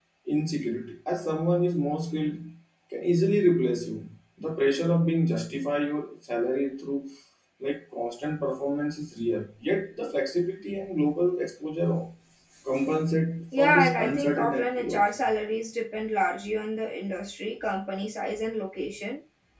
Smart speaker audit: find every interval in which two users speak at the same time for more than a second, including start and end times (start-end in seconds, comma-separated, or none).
13.6-15.1